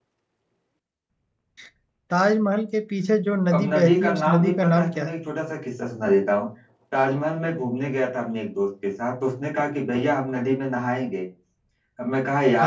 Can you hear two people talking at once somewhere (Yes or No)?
Yes